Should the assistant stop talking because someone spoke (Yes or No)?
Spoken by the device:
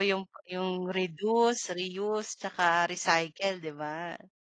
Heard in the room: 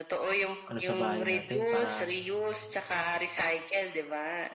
Yes